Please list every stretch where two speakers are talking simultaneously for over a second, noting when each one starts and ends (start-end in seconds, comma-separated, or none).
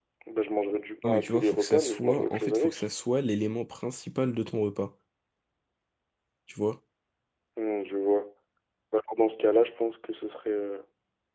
1.1-2.8